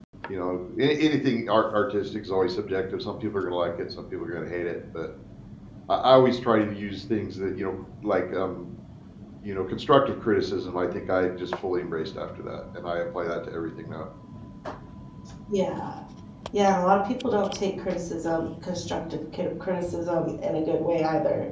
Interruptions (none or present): none